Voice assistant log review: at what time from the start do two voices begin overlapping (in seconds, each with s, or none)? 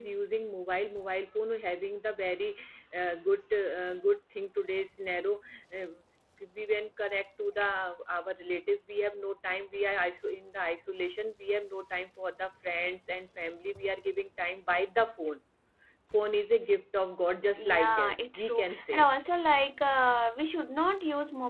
17.6 s